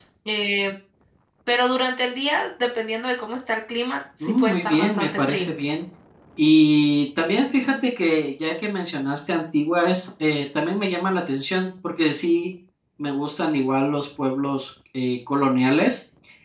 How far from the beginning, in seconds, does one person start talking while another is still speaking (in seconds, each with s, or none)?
4.2 s